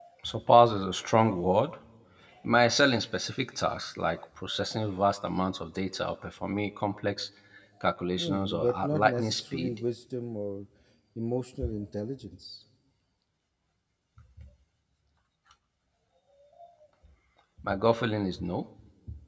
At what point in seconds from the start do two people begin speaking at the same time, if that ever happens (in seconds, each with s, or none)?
8.2 s